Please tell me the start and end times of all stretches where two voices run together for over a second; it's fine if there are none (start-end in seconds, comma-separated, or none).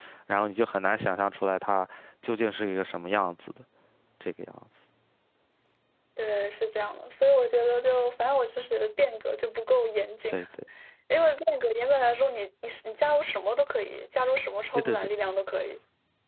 none